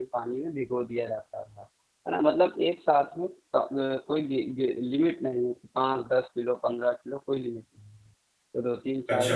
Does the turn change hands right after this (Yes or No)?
No